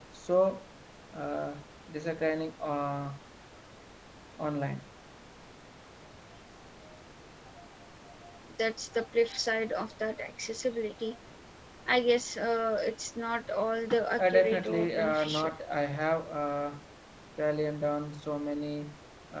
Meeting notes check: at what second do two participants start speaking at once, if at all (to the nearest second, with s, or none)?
14 s